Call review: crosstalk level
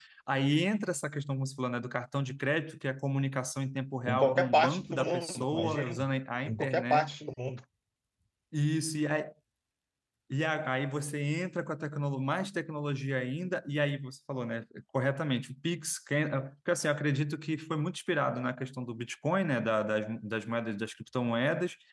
present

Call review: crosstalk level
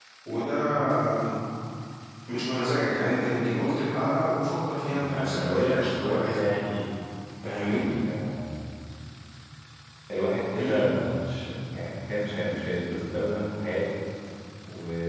present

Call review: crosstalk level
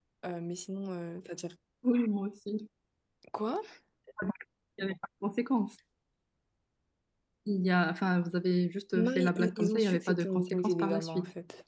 present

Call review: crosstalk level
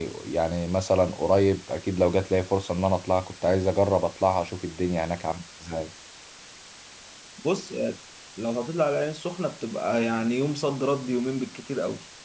none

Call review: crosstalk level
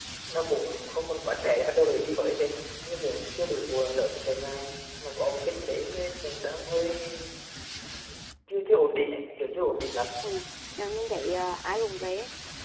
none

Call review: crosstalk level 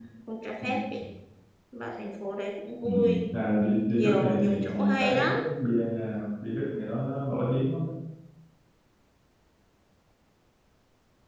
present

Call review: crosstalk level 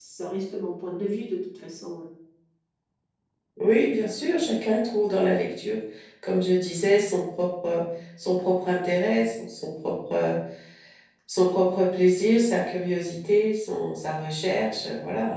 none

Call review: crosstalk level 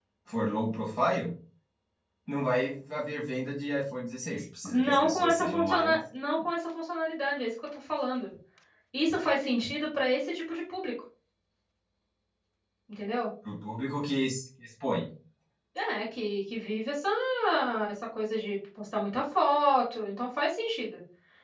present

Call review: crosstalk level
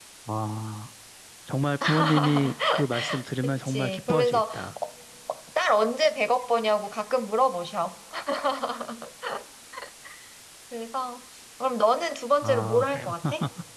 present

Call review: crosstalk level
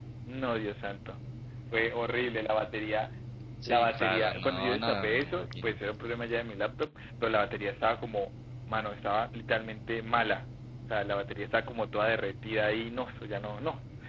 present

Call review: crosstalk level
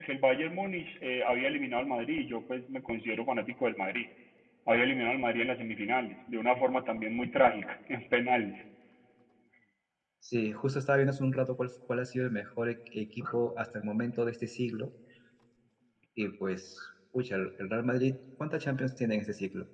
none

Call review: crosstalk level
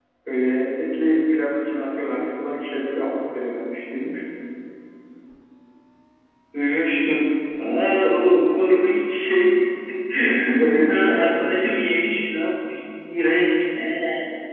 present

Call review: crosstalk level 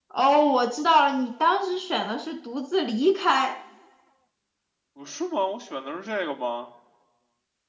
none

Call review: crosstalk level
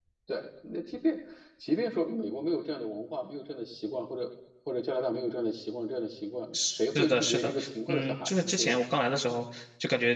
present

